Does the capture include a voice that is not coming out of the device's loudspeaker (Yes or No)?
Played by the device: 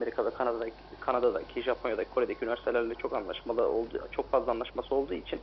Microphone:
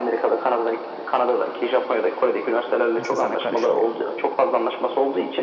Yes